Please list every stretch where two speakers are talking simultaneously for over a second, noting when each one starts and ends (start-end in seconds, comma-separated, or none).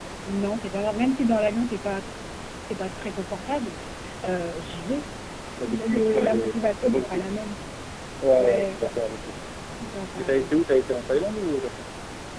5.6-7.2